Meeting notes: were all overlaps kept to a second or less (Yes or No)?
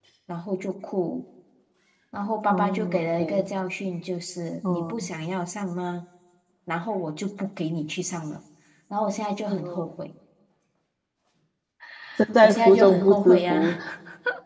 No